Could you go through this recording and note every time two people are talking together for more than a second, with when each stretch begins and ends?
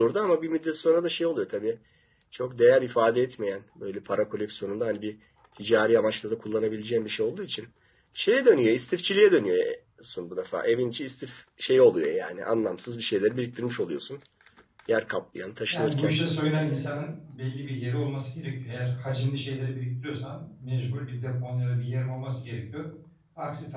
15.7-17.0

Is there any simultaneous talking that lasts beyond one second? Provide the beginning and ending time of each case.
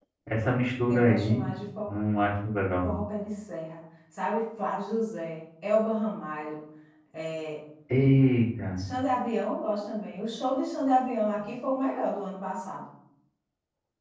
none

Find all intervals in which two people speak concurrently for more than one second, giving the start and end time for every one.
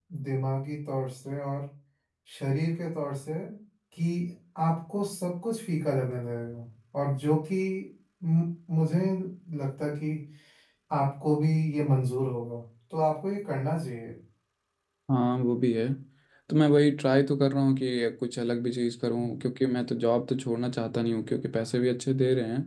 none

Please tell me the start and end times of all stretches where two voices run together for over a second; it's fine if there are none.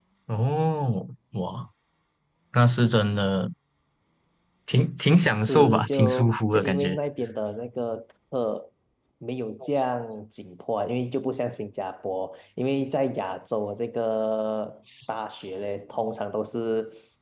5.4-7.0

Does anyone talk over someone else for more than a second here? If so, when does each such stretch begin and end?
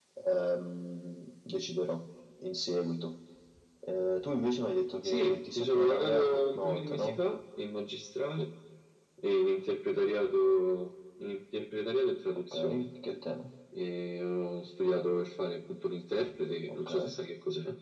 5.0-7.2

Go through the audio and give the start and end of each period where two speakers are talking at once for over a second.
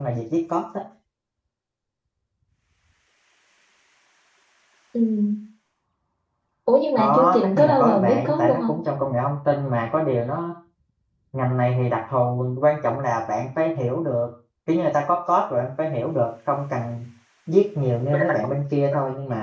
7.0-8.8

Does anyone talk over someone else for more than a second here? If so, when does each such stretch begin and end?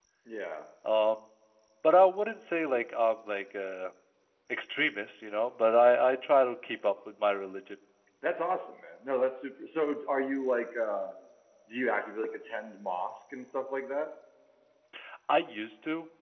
none

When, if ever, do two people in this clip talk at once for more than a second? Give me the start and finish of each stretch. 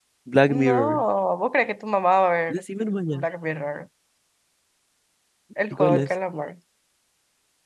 none

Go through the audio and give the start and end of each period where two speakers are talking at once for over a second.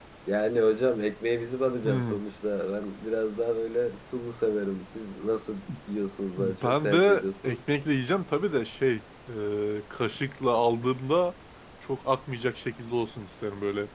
6.4-7.6

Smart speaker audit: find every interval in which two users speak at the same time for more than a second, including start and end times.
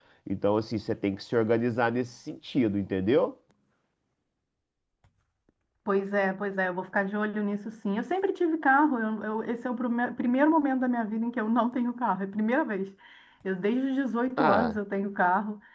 none

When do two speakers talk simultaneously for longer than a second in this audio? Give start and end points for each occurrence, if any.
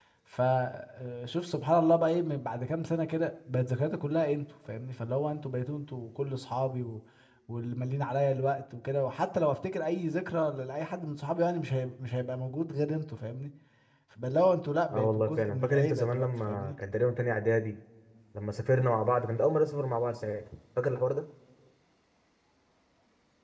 14.9-16.7

